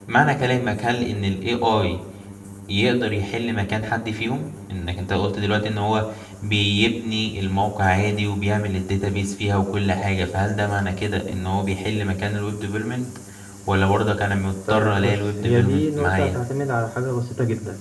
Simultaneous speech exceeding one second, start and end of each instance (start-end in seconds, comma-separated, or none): 14.7-16.4